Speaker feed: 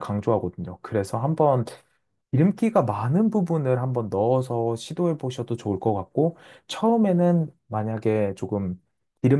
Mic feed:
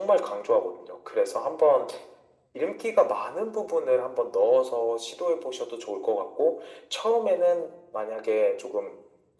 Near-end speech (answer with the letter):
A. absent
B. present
A